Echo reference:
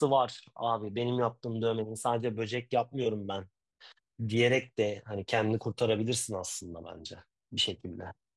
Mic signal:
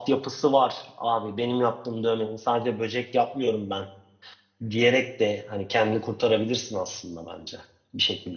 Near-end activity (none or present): none